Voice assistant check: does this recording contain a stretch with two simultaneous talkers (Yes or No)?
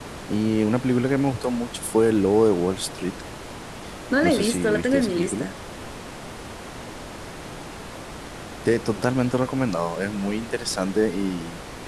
Yes